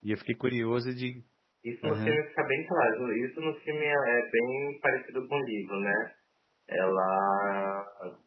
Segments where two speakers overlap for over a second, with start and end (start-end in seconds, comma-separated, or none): none